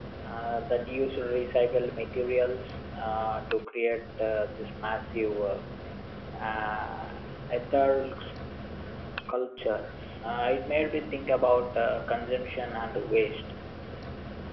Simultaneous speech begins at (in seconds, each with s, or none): none